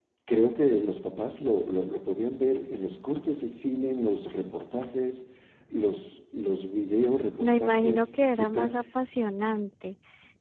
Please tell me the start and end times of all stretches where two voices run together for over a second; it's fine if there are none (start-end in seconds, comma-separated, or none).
7.4-8.7